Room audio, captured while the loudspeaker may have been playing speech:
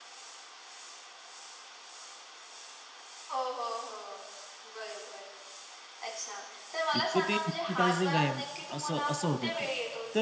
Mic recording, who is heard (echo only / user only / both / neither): both